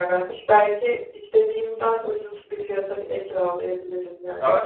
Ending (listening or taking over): taking over